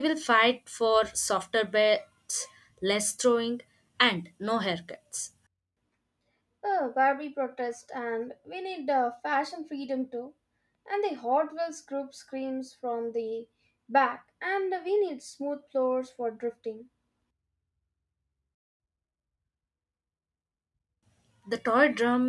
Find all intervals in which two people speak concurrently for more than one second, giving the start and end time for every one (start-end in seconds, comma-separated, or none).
none